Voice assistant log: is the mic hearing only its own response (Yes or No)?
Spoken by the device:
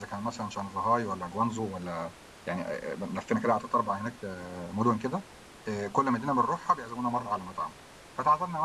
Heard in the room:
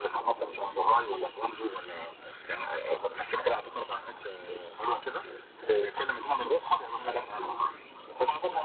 Yes